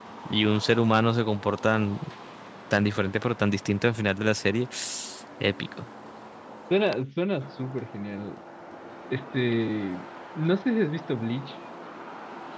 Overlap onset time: none

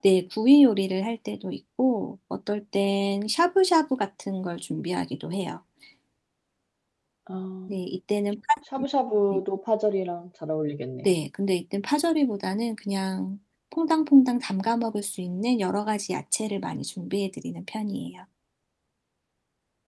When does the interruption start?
none

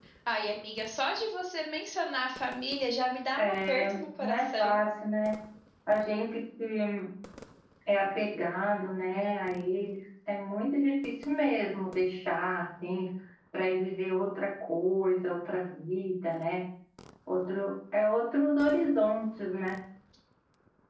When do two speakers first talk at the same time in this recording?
3.4 s

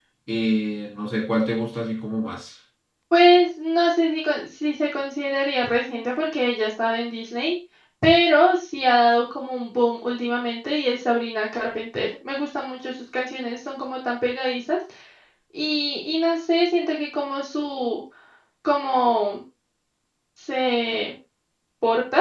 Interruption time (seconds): none

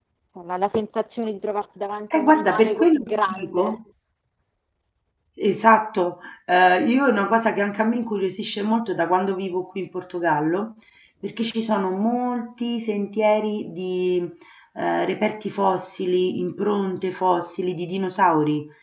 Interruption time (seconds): 2.1 s

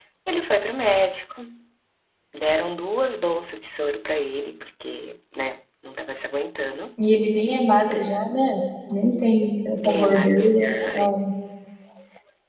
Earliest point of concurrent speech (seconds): 9.8 s

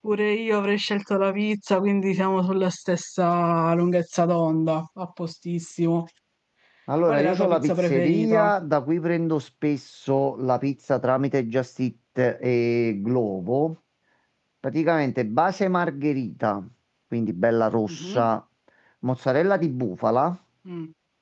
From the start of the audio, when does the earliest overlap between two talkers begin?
7.1 s

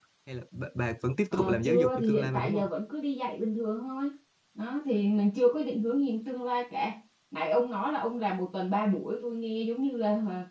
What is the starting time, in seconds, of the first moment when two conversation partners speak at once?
1.3 s

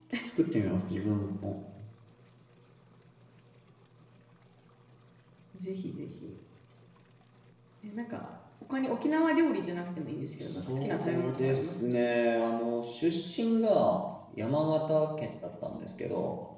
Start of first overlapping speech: 10.3 s

